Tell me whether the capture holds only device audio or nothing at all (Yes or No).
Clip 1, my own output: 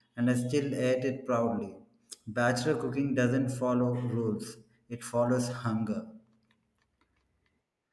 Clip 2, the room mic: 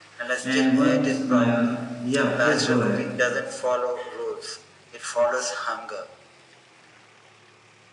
No